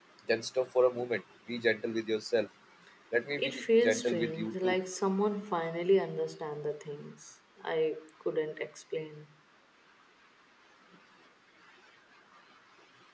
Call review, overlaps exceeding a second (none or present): present